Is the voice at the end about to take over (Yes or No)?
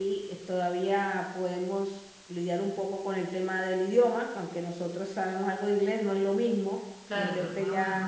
Yes